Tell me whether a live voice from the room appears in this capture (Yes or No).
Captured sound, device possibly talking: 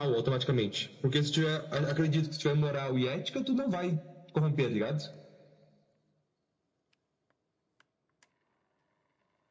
No